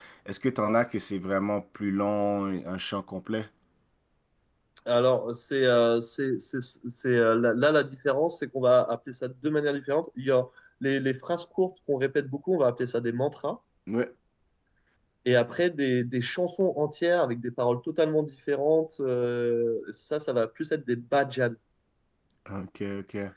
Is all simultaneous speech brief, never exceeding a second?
Yes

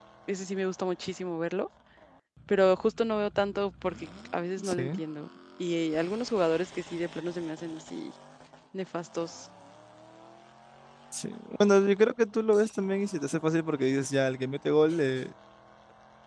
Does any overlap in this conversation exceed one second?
No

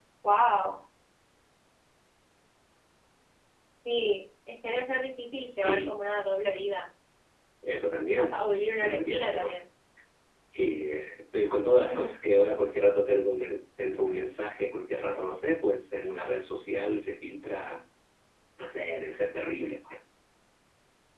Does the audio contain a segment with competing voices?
Yes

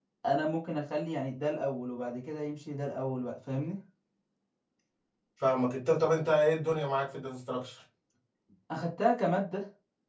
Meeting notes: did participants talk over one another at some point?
No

